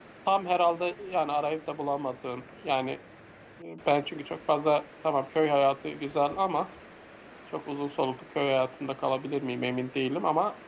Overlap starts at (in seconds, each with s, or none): none